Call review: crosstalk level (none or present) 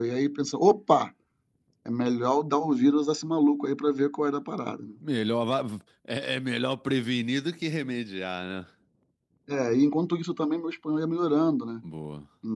none